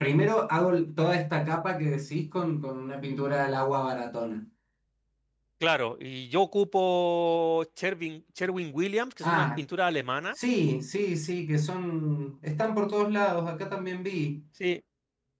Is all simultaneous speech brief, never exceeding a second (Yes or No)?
Yes